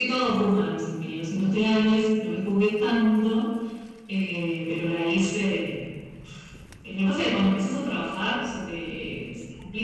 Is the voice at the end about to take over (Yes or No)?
No